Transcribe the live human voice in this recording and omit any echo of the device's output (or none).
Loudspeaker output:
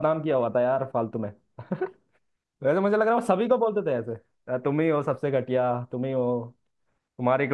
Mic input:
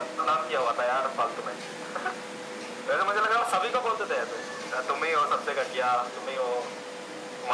none